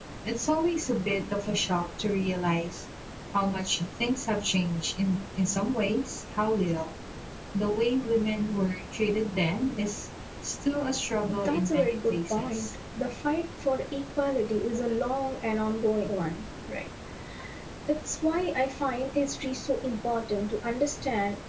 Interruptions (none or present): present